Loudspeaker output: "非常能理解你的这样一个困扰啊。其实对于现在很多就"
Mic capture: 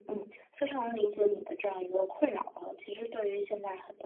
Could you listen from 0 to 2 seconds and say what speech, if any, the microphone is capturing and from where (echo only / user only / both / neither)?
echo only